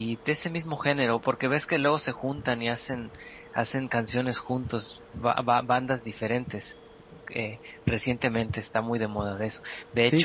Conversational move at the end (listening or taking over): listening